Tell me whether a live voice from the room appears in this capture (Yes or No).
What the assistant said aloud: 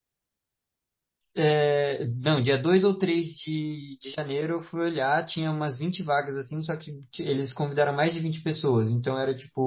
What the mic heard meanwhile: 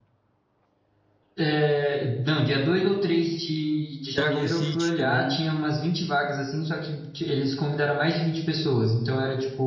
Yes